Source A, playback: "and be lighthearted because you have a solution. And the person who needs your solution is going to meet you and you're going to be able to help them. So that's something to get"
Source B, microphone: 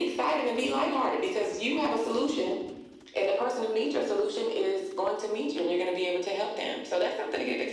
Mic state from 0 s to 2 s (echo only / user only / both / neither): echo only